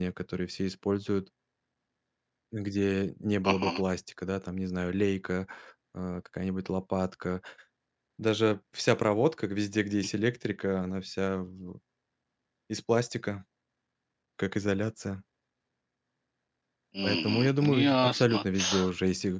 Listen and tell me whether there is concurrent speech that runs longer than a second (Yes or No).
Yes